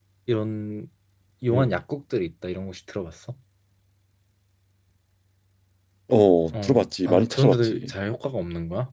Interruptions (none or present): present